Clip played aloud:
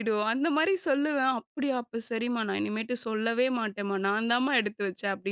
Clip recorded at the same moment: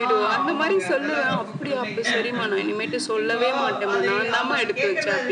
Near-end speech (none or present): present